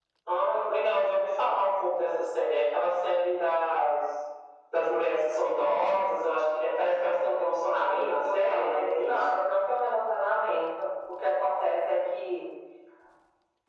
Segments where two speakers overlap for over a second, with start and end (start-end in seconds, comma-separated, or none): 7.7-9.2